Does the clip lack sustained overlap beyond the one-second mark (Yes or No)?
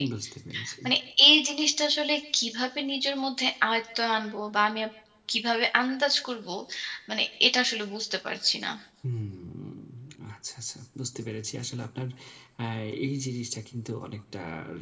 Yes